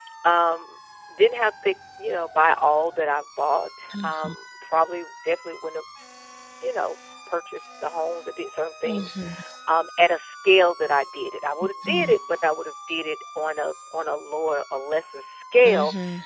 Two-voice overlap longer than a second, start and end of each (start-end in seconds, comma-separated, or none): none